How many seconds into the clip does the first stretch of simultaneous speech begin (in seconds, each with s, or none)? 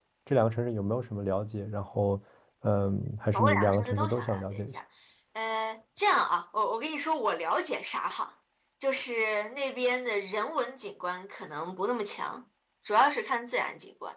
3.3 s